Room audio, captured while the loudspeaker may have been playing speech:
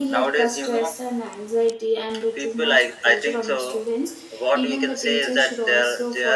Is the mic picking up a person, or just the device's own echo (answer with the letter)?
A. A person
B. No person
A